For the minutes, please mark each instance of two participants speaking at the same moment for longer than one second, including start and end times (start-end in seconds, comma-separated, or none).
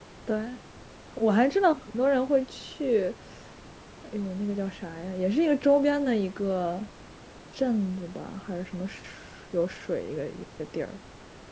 none